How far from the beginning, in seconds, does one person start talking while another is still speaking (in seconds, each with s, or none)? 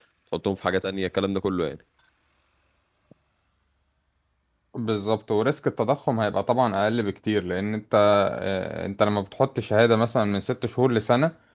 none